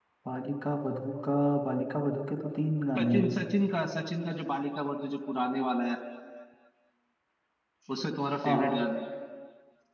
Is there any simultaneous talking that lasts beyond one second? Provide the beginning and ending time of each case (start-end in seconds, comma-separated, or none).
none